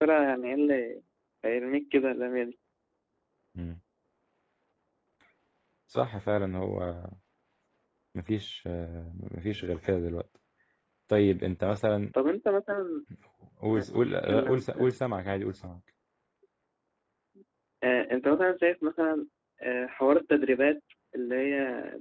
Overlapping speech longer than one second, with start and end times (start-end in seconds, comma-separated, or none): 13.7-15.0